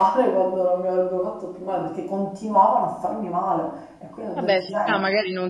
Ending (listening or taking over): taking over